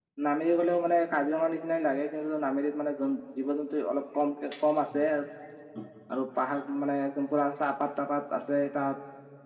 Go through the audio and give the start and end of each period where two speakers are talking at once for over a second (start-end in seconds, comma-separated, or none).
none